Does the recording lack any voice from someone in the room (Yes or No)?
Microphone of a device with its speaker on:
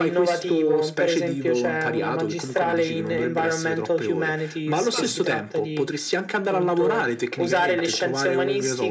No